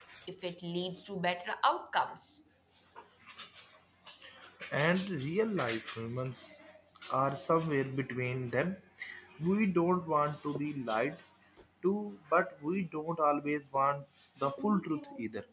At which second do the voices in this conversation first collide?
none

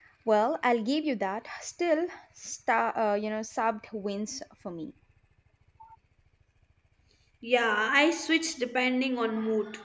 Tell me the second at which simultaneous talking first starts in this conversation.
none

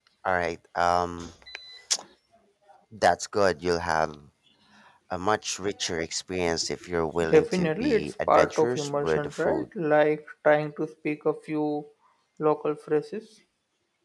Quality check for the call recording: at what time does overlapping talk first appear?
7 s

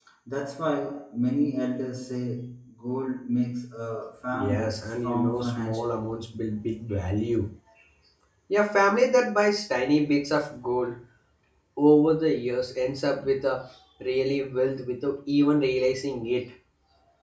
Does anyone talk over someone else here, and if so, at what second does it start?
4 s

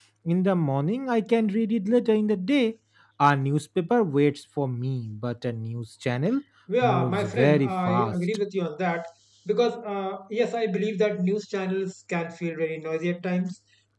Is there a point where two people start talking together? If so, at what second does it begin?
7 s

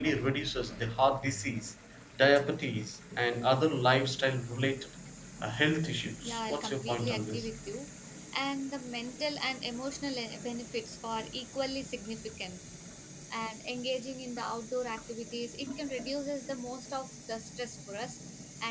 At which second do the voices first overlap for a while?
6 s

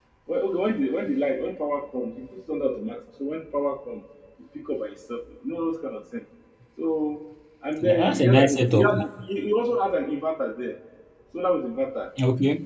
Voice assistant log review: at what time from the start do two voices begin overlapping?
8 s

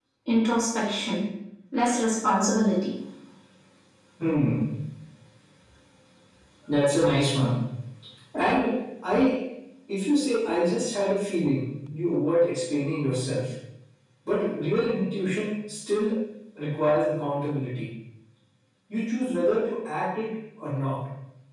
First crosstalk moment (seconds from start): none

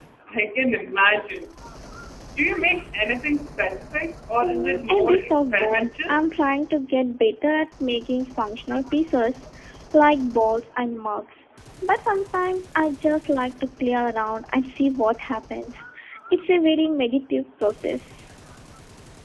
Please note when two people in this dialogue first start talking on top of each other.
4 s

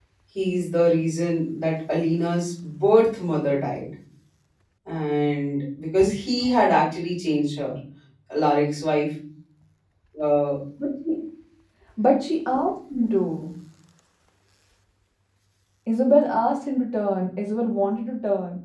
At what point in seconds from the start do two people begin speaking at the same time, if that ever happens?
none

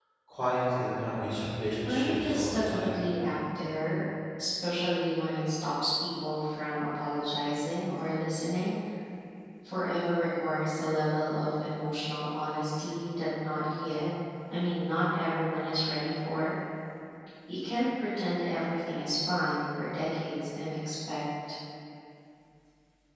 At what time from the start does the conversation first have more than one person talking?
2 s

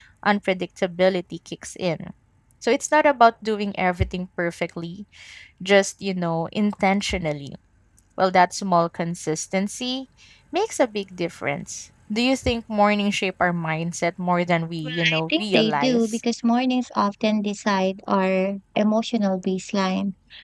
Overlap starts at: 15 s

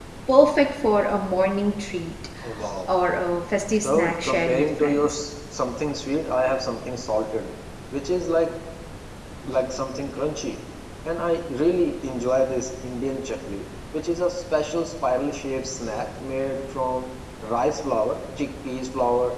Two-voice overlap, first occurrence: 4 s

